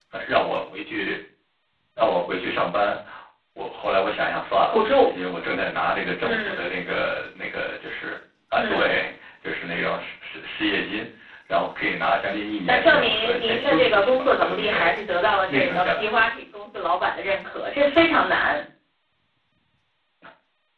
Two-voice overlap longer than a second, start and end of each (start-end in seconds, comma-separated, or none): 12.7-15.0